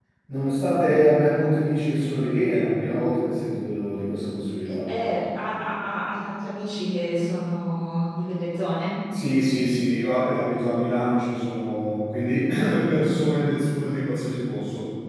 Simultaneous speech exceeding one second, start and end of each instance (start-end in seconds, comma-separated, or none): none